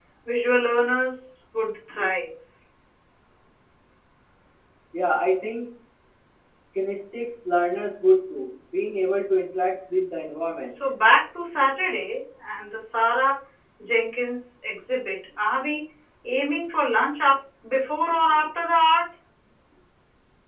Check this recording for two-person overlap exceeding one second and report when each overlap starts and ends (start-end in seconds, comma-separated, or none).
none